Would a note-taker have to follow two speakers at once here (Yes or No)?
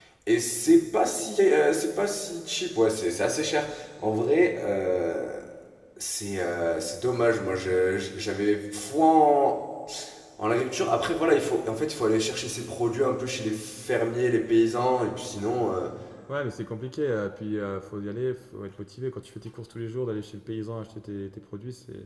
No